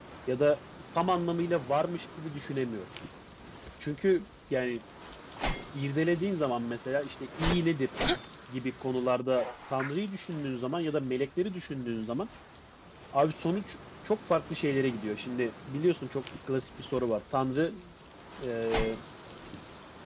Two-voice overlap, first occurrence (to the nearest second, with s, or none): none